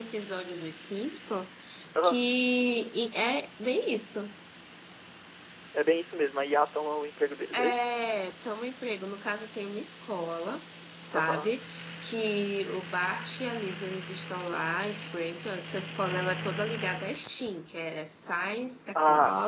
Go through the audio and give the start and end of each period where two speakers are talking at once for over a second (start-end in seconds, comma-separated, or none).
none